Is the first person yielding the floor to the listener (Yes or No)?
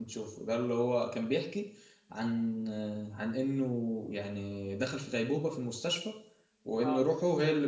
No